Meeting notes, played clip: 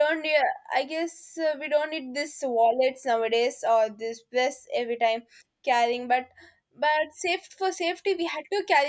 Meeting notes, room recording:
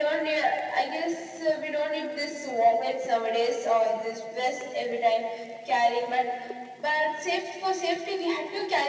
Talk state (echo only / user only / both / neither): echo only